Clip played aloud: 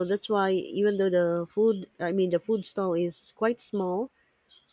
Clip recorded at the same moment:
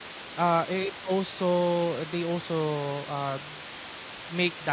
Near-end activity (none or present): present